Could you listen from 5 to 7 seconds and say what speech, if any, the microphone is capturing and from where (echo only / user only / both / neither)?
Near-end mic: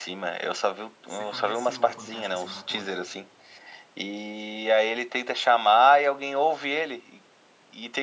echo only